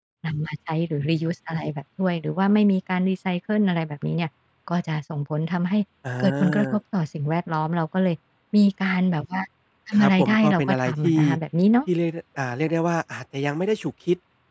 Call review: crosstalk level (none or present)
present